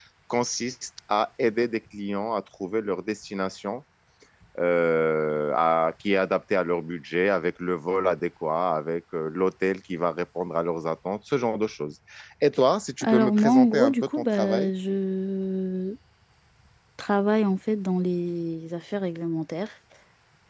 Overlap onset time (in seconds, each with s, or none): 13.0 s